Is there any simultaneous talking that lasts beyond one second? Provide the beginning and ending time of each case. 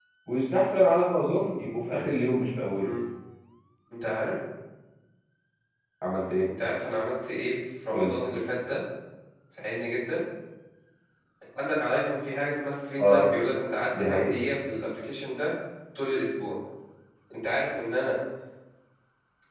none

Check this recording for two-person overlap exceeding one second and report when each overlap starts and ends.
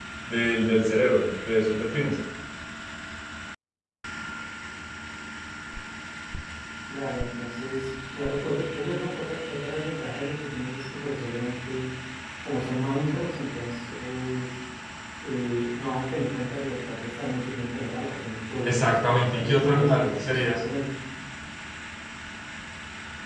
18.6-20.6

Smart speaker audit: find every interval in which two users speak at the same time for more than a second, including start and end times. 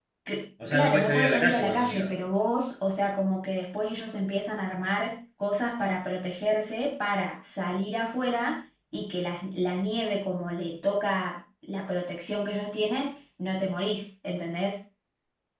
0.7-2.1

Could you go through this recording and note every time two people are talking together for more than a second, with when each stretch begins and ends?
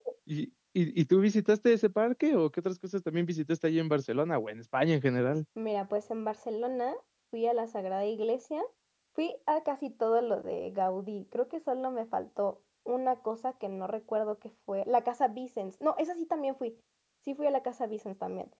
none

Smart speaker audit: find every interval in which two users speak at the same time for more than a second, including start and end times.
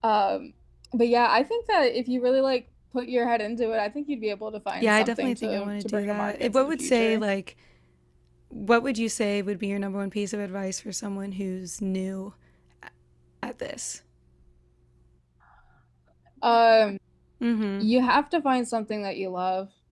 4.8-7.2

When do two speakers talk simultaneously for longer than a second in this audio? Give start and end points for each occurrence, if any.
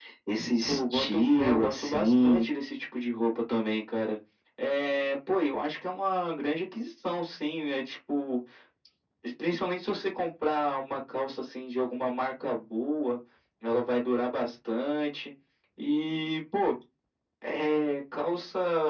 0.7-2.5

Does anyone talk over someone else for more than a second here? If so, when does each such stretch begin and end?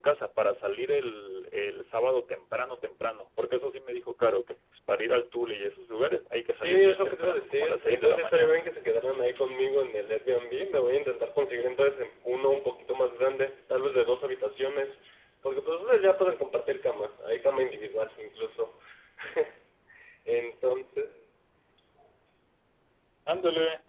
6.5-8.6

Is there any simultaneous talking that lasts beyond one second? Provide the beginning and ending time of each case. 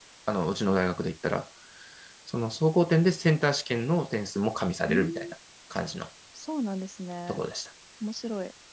none

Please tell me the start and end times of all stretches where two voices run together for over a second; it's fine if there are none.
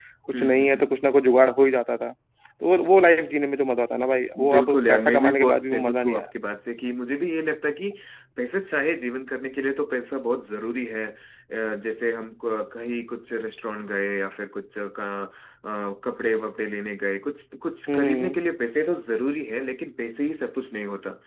4.5-6.2

